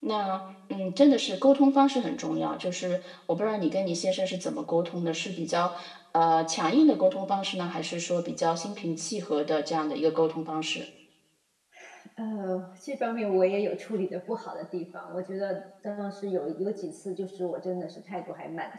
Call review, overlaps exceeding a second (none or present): none